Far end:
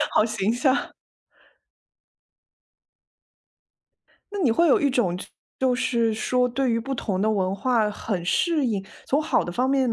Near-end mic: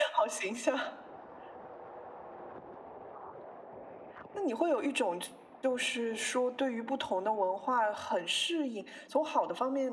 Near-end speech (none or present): none